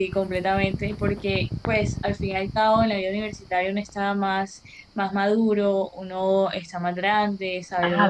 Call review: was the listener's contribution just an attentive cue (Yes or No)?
No